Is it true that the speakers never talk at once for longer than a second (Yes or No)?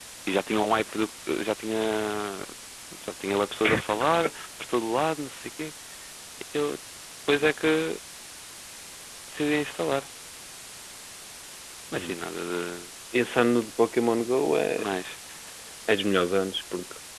Yes